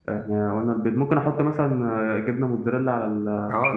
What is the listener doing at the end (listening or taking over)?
taking over